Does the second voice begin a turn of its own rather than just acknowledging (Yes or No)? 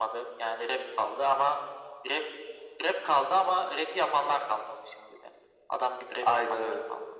Yes